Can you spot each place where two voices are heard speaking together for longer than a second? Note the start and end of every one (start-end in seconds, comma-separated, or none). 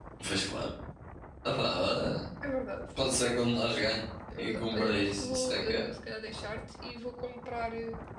4.4-5.9